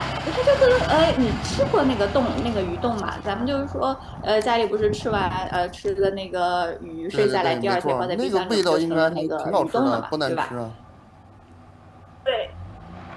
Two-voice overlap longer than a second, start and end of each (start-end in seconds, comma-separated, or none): 7.1-10.6